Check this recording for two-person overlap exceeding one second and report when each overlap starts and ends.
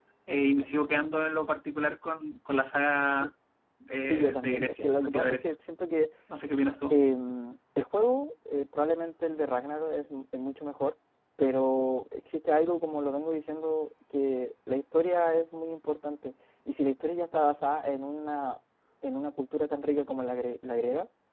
4.0-5.5

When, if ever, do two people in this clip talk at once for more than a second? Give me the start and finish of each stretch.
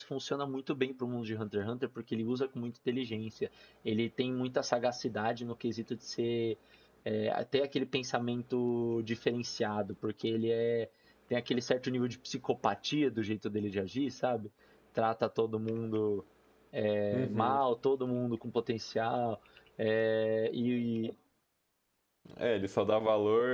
none

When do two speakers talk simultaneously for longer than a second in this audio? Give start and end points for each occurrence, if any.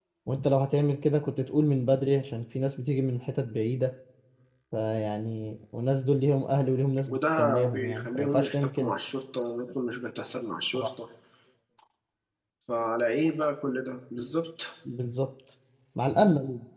7.1-8.9

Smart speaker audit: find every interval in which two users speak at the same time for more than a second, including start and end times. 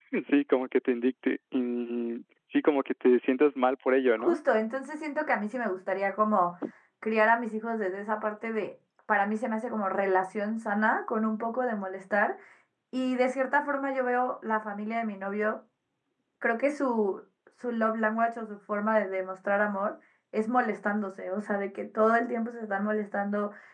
none

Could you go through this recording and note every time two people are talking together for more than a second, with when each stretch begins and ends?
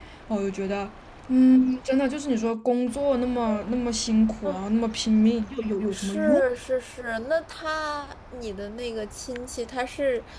none

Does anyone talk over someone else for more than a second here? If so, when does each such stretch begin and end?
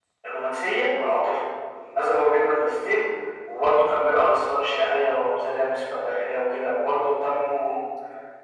none

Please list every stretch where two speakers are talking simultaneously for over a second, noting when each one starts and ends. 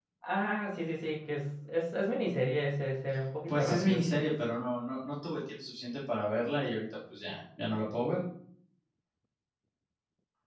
none

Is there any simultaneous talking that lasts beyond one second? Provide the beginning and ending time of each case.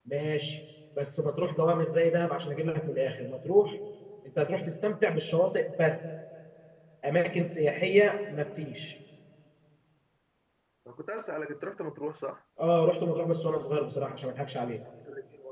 none

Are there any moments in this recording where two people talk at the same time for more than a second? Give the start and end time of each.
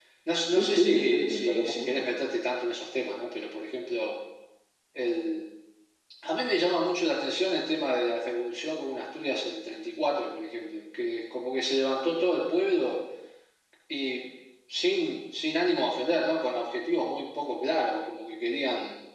0.5-2.0

